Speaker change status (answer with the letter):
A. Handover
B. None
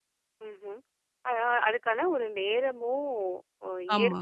B